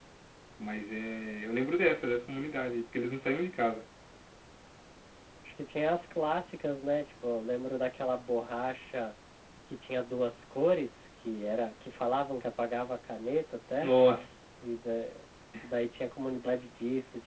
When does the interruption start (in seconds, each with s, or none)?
none